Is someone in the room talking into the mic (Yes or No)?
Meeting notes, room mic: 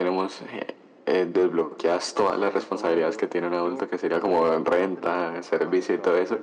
Yes